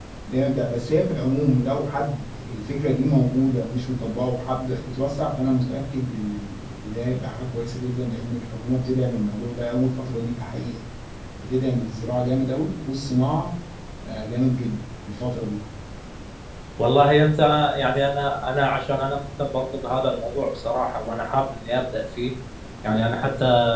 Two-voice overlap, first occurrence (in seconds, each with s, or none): none